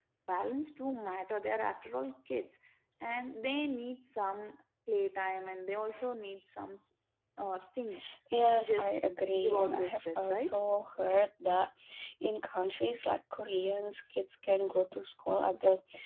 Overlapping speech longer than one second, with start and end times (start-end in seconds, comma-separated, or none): 9.4-10.6